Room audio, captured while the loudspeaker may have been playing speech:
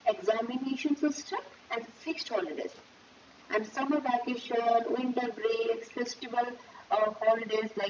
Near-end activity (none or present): none